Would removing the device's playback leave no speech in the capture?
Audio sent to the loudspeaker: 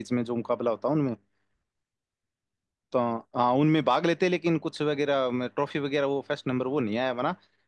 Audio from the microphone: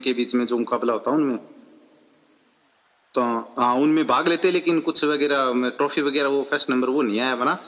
Yes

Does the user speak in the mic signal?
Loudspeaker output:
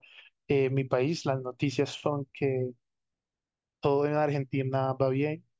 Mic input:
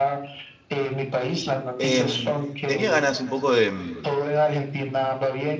Yes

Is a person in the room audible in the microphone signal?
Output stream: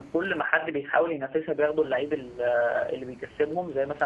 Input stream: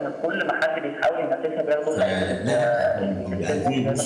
Yes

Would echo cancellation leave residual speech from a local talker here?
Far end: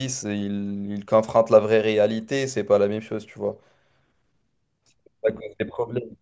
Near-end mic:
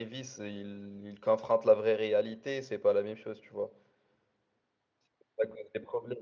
No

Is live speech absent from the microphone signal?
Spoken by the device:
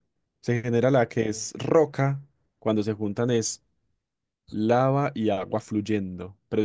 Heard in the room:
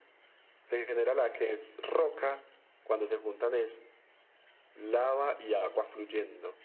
Yes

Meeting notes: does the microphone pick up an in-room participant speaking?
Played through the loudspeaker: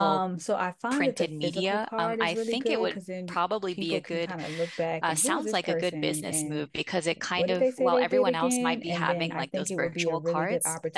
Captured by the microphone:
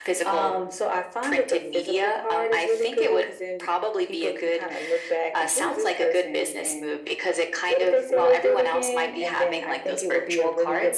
No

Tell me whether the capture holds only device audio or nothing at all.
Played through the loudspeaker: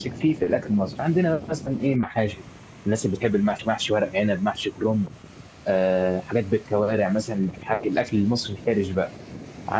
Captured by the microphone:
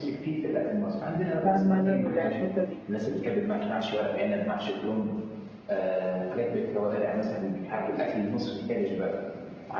No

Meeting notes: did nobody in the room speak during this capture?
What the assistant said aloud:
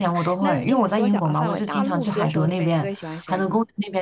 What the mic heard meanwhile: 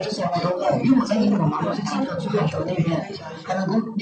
Yes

